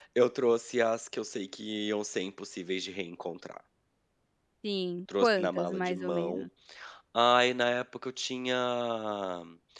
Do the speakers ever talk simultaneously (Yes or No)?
Yes